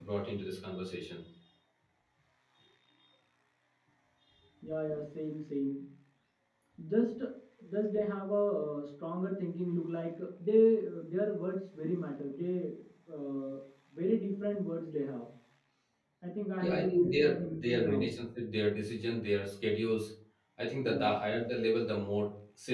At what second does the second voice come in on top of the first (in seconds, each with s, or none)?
16.6 s